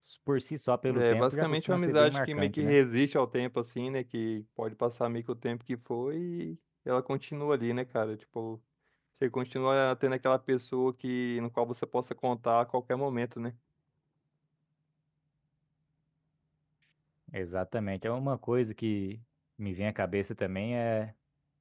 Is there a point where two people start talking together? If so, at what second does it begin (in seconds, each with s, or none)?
0.9 s